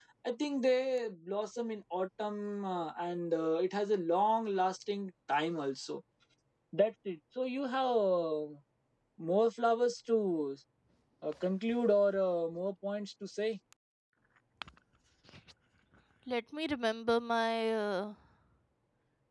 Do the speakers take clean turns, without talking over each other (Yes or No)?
Yes